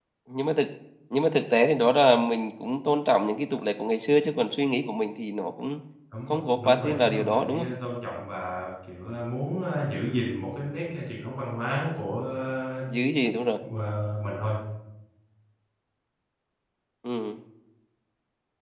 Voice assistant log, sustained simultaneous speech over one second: present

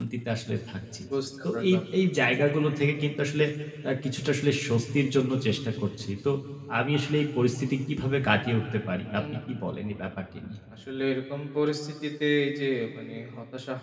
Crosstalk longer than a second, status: none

